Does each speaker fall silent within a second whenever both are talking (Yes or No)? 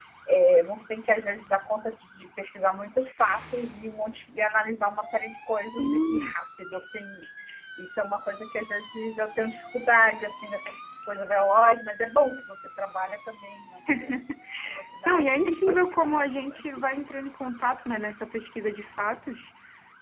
No